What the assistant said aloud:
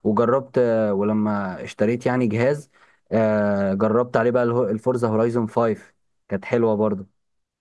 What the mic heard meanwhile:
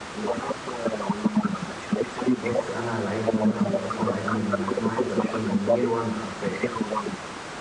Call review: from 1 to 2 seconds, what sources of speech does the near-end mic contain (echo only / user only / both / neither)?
echo only